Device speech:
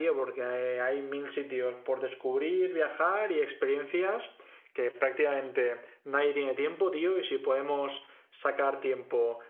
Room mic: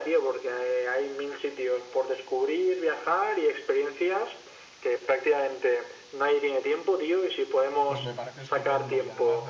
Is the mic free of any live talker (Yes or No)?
No